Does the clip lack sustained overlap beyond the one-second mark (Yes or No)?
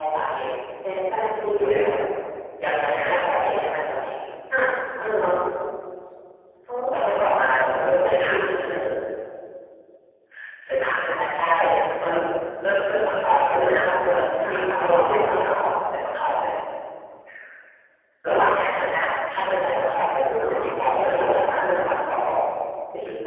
No